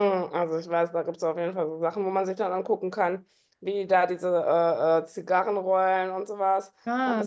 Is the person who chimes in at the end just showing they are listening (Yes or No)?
Yes